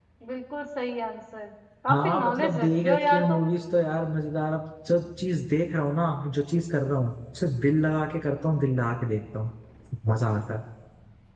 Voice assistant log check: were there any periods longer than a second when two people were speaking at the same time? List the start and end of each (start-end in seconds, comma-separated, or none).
1.9-3.5